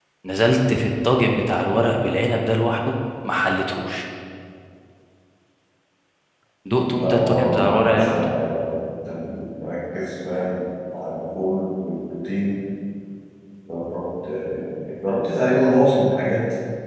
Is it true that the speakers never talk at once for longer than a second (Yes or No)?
No